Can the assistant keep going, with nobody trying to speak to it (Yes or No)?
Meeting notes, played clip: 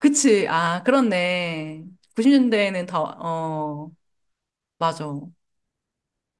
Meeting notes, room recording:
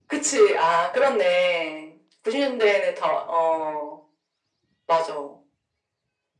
Yes